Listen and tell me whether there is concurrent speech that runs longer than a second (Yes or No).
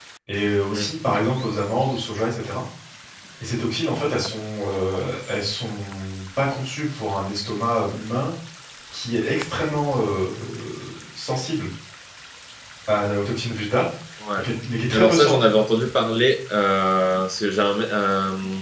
No